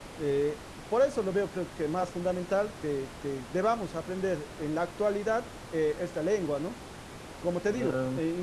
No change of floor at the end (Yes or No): Yes